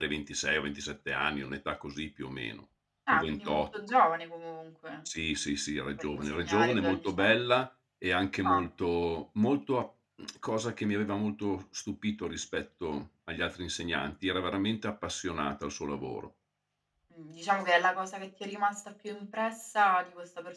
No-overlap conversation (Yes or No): No